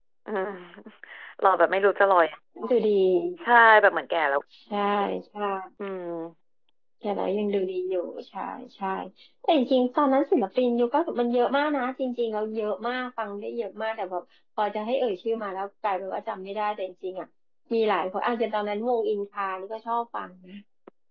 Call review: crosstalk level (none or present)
none